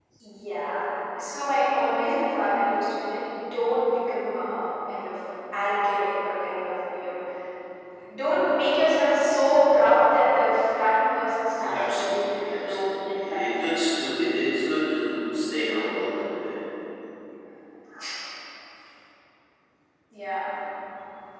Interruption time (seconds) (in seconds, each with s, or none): 11.6 s